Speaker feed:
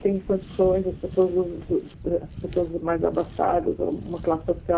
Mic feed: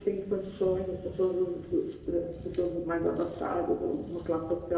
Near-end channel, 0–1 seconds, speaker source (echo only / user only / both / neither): echo only